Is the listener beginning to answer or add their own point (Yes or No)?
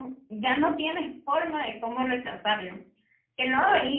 No